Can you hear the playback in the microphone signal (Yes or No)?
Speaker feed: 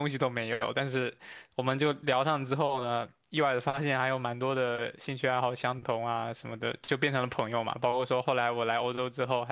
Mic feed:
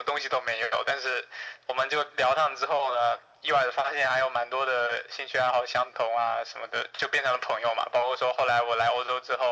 Yes